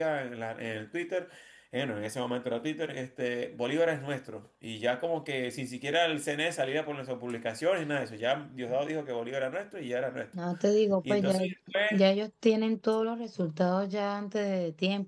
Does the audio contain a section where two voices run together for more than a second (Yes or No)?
No